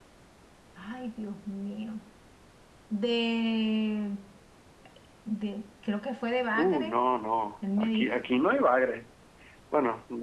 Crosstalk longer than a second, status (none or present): none